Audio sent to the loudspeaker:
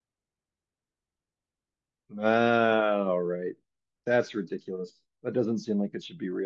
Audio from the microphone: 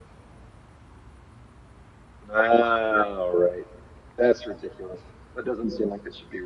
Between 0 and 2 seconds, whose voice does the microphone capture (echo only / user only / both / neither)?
neither